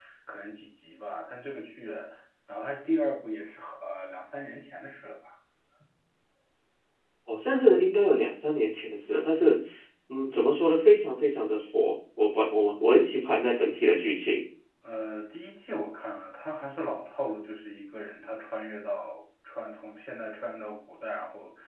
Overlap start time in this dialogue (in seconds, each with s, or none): none